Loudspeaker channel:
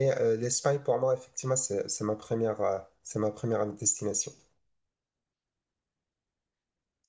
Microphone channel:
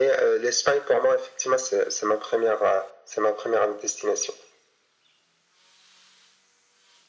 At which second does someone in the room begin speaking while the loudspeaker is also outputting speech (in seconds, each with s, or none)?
none